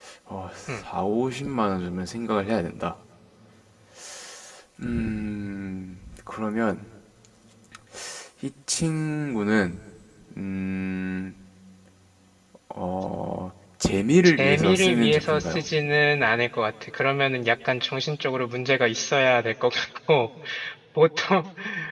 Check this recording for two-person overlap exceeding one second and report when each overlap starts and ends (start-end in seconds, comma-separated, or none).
14.4-15.6